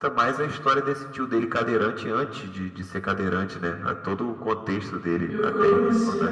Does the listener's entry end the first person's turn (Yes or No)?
Yes